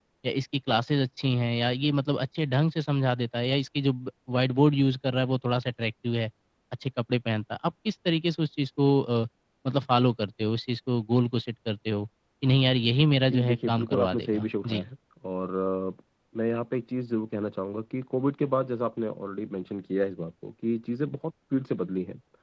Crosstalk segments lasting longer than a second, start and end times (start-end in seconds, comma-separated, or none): 13.3-14.9